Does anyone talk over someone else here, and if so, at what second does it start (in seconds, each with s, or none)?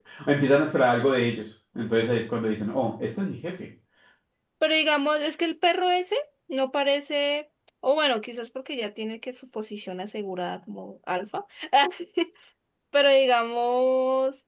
none